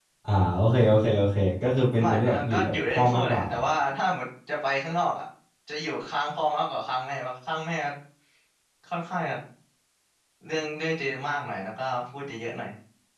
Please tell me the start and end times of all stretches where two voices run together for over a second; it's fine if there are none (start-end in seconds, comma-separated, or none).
2.0-3.5